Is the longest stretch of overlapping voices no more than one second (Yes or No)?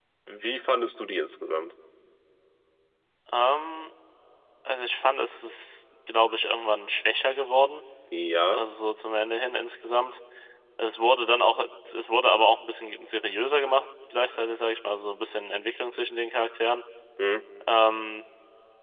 Yes